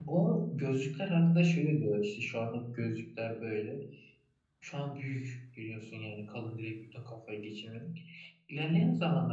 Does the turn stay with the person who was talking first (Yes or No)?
Yes